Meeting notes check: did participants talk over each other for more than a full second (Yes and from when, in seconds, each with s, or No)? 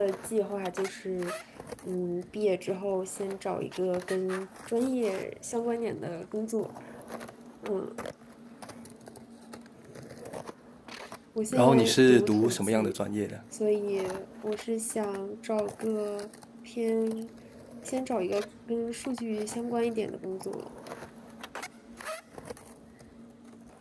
Yes, from 11.5 s